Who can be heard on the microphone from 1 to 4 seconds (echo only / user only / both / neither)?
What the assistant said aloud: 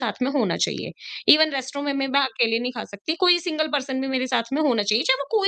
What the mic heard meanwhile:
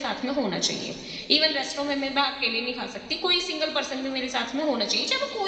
echo only